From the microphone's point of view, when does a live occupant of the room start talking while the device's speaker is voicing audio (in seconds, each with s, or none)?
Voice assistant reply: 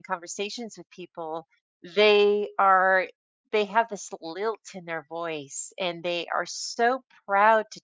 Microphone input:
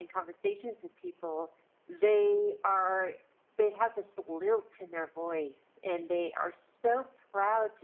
none